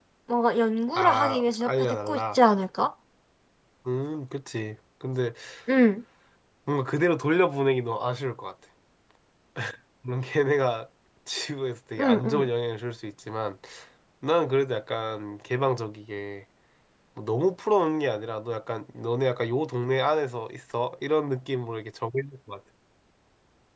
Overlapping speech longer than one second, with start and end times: 1.0-2.4

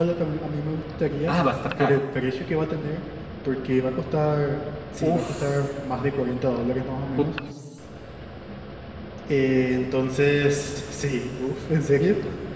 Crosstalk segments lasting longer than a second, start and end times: none

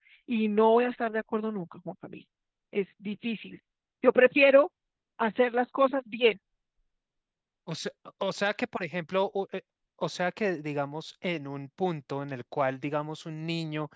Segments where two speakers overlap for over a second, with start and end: none

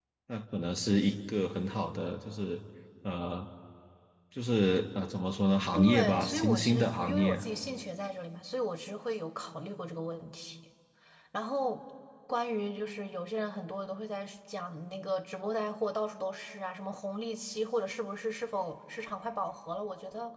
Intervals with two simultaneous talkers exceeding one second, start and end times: 5.7-7.3

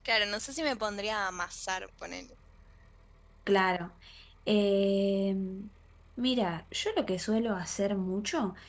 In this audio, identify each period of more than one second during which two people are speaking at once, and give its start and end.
none

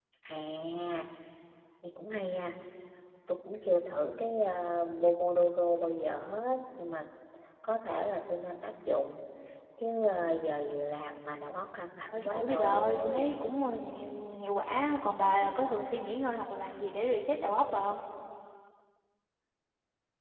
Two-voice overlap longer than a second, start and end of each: 12.1-13.4

